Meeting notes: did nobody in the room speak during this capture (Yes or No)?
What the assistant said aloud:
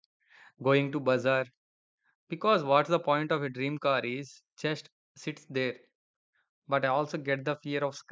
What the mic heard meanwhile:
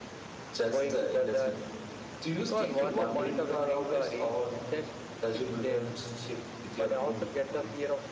No